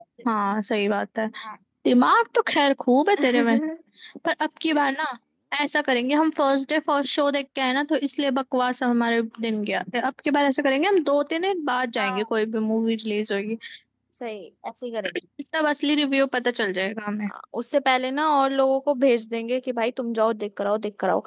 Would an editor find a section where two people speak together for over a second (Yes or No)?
No